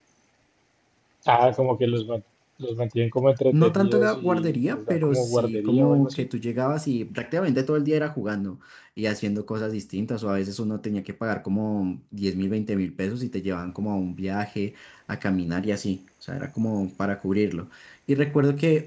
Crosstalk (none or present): present